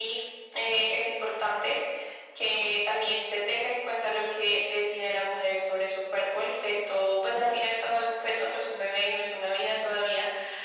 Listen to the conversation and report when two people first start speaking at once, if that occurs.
none

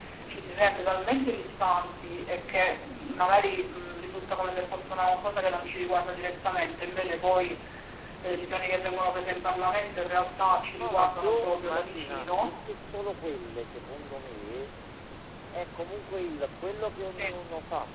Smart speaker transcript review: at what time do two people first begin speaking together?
10.8 s

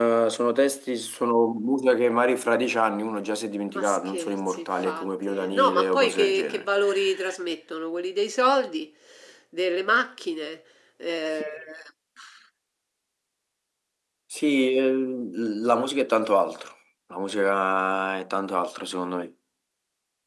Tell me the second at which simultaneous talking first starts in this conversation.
3.8 s

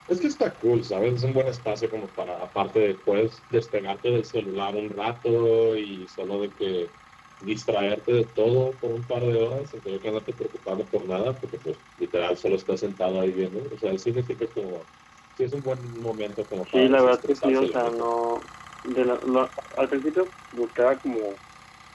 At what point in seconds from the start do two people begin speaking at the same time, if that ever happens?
16.6 s

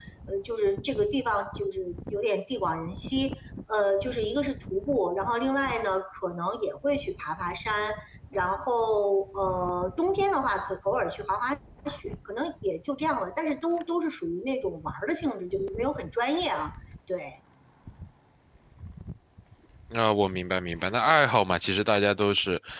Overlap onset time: none

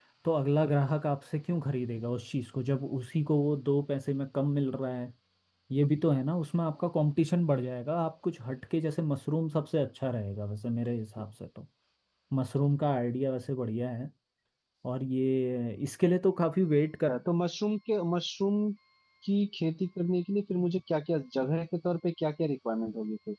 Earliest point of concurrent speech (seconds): none

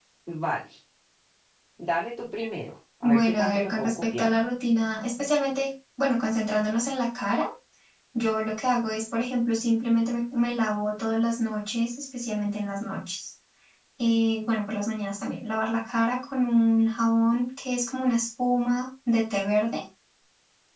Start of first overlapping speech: 3.0 s

